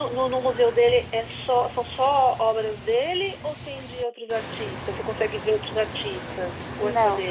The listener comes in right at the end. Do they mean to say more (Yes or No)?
Yes